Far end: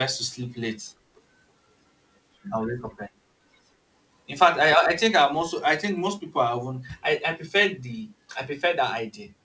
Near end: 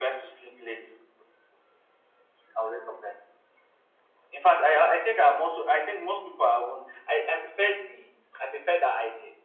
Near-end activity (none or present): none